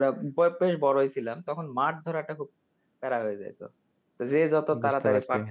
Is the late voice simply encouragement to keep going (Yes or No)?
Yes